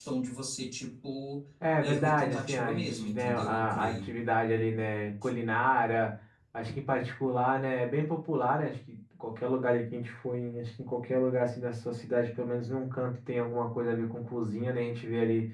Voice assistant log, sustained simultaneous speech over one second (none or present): present